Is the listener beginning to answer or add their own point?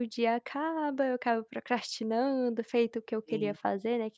No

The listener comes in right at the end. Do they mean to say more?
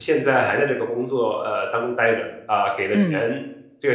No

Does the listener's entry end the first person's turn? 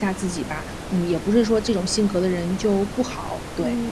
Yes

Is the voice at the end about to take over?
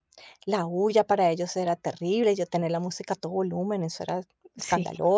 Yes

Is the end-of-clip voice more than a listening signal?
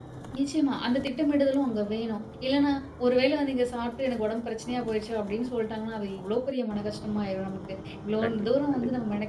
No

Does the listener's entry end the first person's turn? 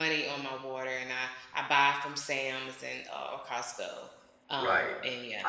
Yes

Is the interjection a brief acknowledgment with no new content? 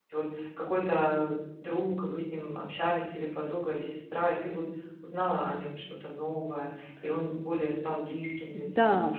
No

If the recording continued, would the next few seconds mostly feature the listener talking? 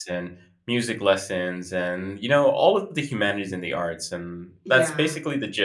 No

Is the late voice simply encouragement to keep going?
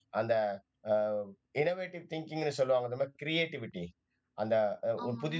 Yes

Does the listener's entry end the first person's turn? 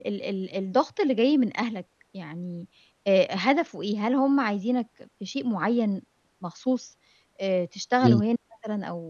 No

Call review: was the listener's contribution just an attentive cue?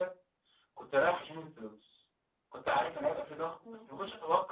Yes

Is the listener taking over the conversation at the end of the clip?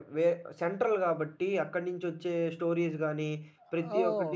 No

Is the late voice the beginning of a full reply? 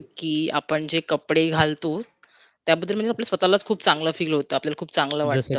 No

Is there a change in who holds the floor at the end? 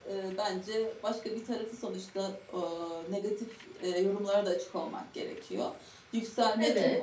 No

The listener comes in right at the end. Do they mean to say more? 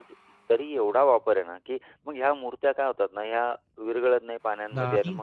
No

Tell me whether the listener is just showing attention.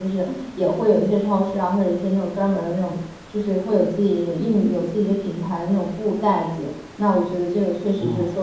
Yes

